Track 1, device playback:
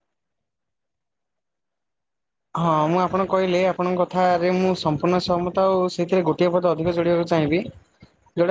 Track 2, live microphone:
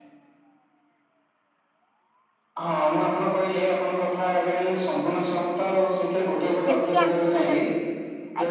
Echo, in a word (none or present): present